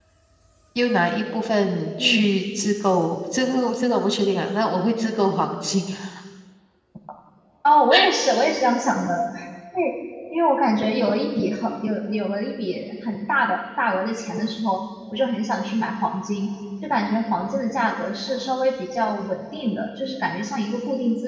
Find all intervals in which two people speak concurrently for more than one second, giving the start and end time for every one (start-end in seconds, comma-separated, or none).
none